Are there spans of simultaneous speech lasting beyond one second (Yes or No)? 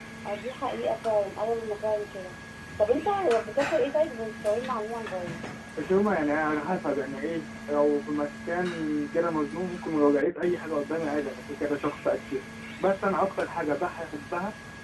No